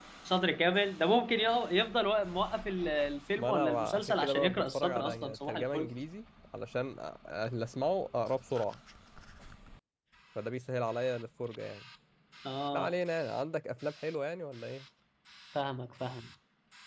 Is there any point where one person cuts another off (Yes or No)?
Yes